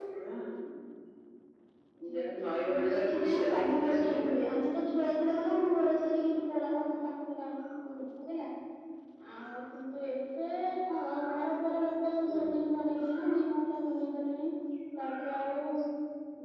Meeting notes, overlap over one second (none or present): present